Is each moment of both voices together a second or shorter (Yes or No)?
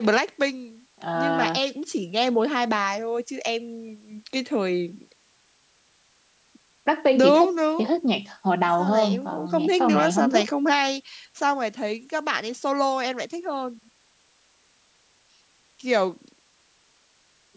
No